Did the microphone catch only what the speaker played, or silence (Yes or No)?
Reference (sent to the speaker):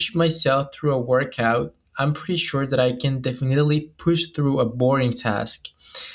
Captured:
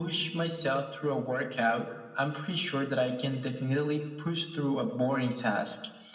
Yes